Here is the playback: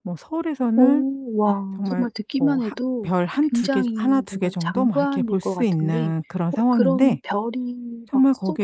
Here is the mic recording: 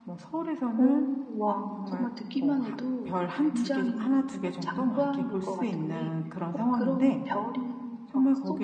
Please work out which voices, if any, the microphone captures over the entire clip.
echo only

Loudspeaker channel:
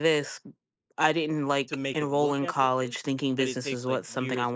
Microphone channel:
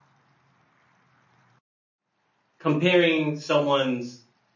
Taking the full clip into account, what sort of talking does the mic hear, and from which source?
user only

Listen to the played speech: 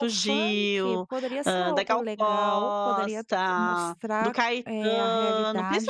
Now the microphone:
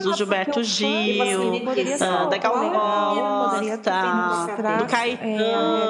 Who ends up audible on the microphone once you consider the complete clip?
both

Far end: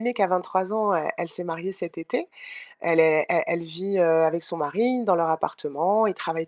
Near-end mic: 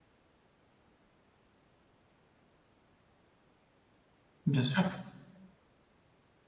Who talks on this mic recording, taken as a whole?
user only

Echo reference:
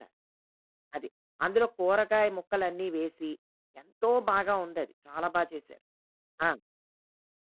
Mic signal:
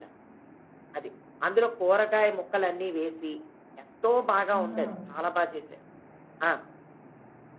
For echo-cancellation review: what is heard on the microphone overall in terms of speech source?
both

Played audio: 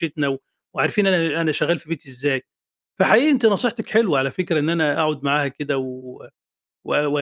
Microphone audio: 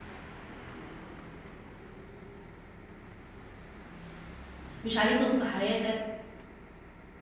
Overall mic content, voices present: user only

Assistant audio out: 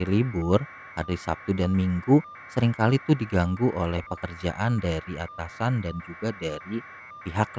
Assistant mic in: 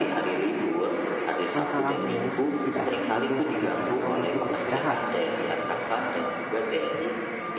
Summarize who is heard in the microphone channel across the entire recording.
both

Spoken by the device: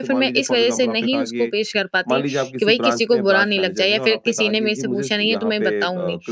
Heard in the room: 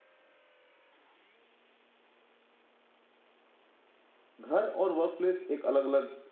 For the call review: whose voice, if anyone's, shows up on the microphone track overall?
user only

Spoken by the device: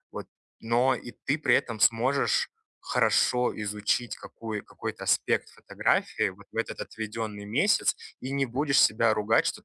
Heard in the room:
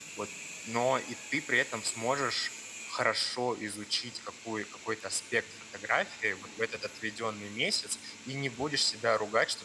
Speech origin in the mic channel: echo only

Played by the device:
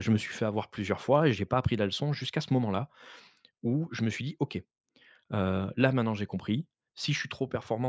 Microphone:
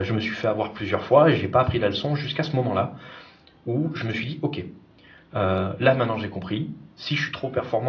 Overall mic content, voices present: echo only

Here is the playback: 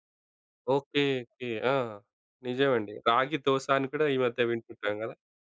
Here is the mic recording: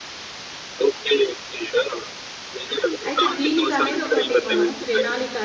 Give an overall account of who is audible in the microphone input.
both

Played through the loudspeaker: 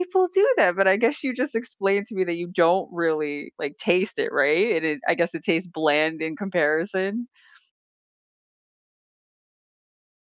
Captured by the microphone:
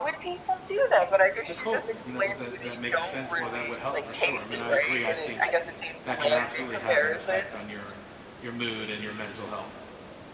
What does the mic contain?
both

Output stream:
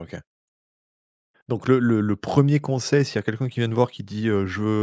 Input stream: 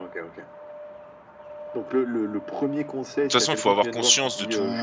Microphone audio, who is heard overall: both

